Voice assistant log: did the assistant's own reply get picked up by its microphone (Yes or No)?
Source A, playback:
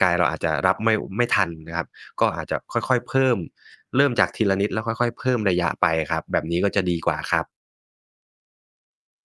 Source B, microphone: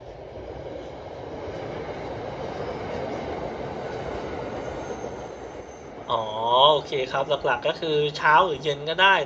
No